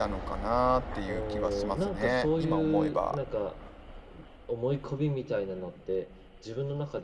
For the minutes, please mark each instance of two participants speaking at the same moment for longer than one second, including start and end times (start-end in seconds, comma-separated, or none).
1.1-3.2